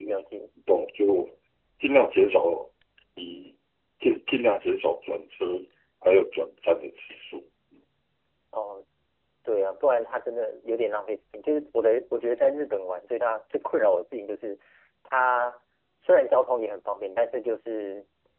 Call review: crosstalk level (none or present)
none